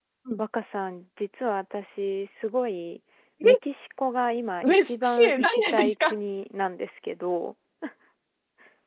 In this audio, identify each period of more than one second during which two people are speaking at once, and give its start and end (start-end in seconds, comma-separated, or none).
4.6-6.1